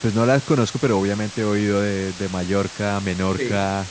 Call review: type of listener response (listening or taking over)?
taking over